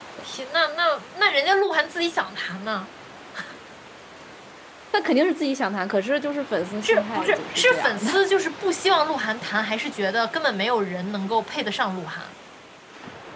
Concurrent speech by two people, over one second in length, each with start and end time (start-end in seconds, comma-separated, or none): 6.8-8.1